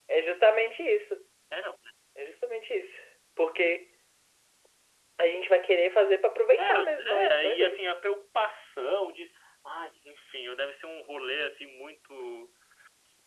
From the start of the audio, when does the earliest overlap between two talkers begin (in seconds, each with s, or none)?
6.6 s